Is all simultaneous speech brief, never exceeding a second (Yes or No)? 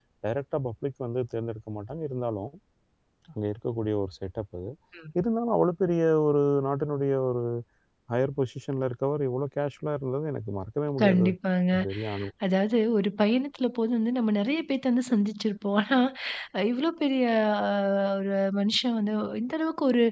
Yes